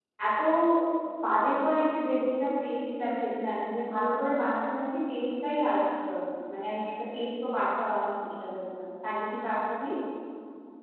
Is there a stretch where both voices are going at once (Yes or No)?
No